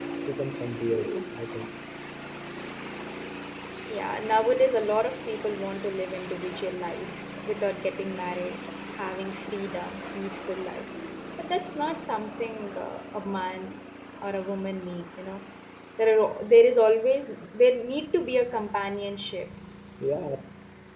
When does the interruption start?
none

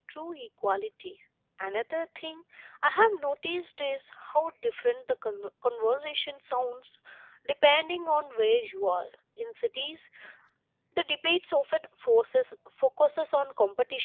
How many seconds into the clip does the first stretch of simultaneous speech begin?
none

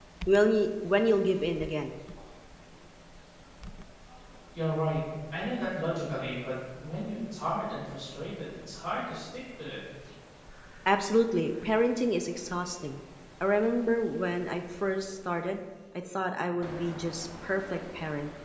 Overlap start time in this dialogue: none

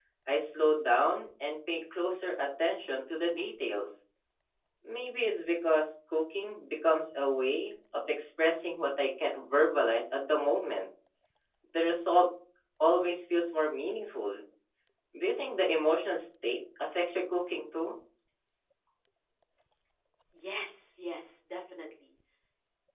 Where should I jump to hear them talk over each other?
none

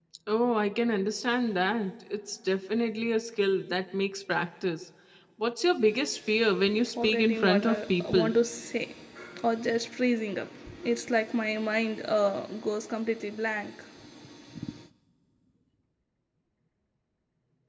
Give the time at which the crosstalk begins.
7.0 s

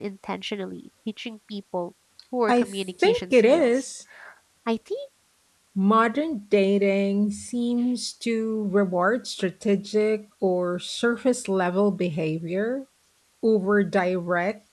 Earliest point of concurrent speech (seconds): 2.5 s

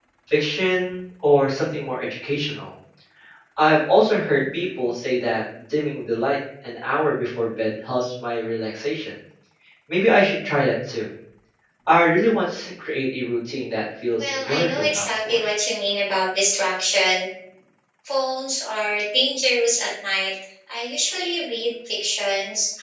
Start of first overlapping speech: 14.1 s

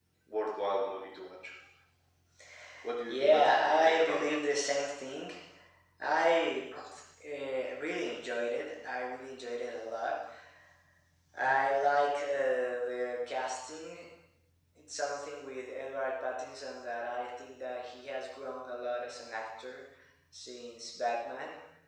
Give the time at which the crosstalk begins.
3.1 s

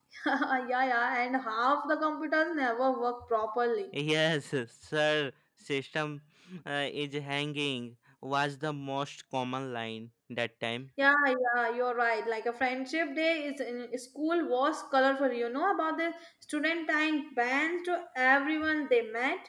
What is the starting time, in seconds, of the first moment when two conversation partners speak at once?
none

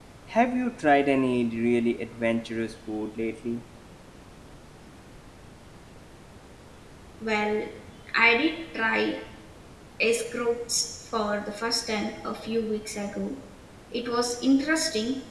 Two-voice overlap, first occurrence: none

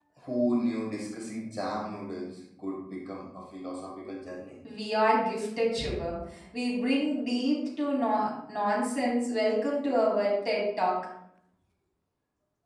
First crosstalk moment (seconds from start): none

